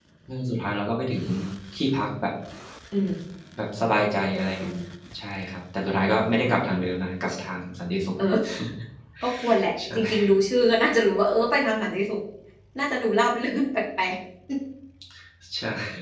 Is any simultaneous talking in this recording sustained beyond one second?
No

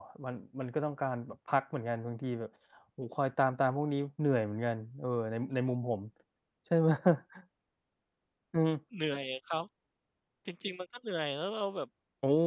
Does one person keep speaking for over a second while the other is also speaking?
No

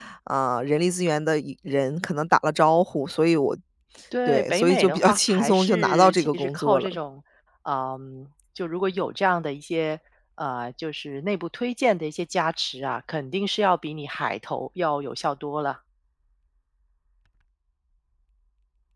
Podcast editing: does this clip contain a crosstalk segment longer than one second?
Yes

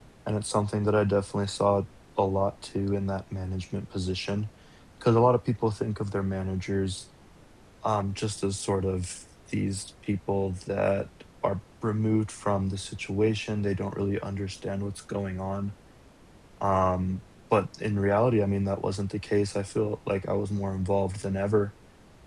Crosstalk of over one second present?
No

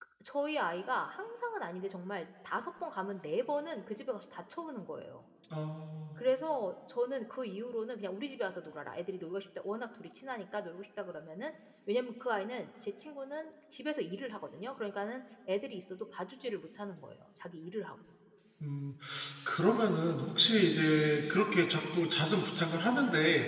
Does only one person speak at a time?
Yes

